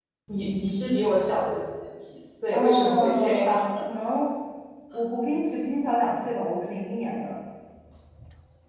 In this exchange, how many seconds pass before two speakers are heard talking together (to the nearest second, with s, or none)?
3 s